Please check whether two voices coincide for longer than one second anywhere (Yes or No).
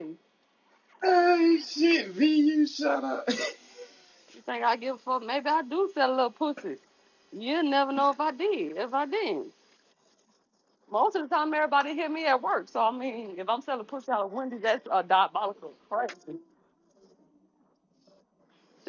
No